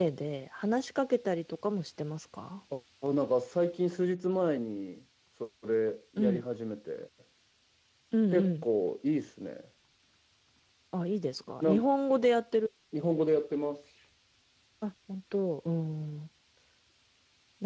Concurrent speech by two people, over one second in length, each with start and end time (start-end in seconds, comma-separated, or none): none